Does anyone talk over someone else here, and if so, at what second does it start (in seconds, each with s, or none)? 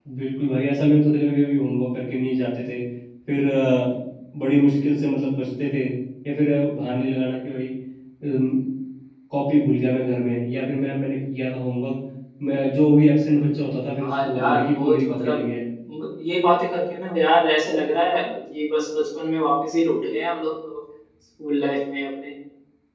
14.0 s